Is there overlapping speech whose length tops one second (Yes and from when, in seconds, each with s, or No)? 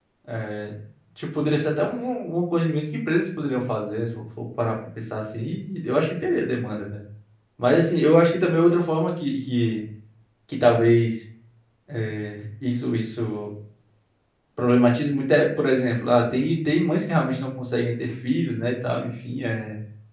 No